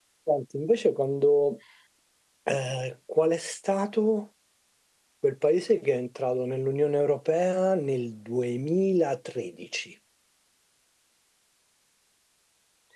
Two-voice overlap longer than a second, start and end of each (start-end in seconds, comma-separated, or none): none